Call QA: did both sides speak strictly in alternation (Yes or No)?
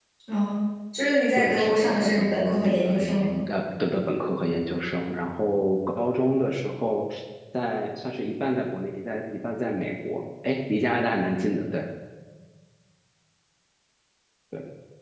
No